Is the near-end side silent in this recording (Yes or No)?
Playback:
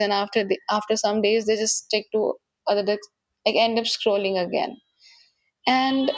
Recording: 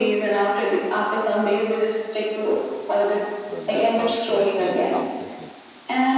No